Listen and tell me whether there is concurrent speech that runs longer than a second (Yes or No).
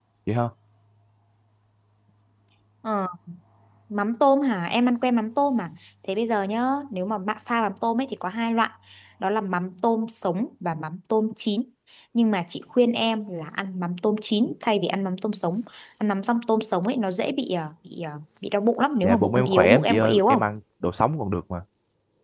Yes